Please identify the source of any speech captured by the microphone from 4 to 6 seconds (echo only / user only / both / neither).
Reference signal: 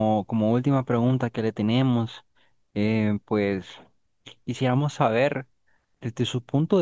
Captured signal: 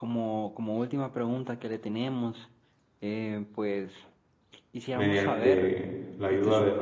both